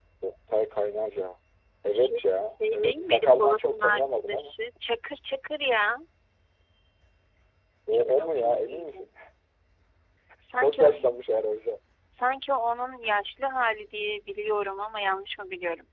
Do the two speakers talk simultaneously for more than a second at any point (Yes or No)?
Yes